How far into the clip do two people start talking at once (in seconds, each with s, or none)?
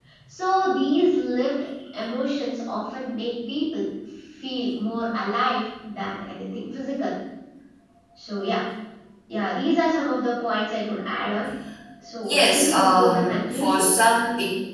12.2 s